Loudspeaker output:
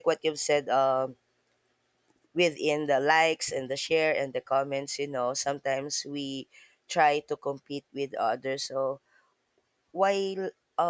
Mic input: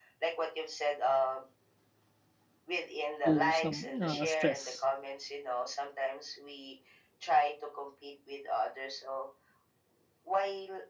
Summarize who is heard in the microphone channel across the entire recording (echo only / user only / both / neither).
both